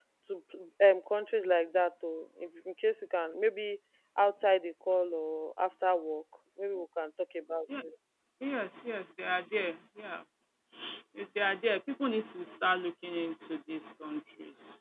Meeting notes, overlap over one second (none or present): none